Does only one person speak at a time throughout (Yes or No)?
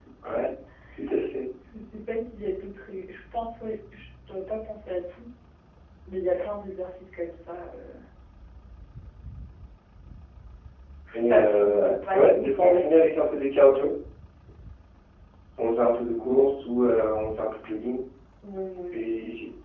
No